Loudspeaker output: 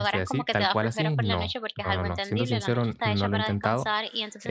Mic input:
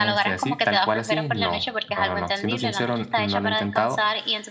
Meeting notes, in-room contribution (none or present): none